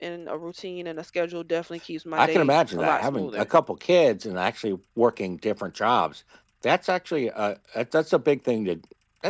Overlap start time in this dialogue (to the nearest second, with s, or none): 2 s